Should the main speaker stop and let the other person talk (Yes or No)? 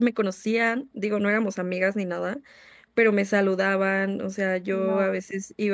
No